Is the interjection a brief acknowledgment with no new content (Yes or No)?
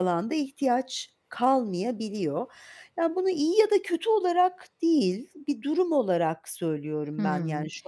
No